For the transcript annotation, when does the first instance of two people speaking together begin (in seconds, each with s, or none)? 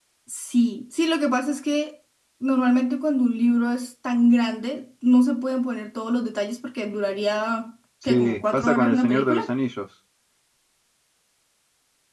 8.0 s